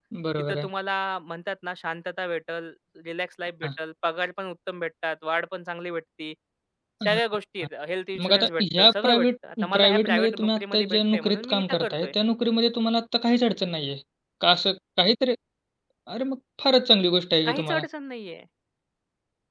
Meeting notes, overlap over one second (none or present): present